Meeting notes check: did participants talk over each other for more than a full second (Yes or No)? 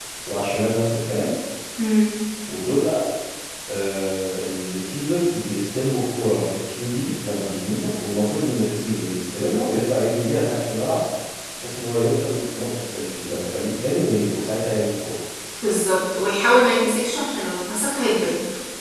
No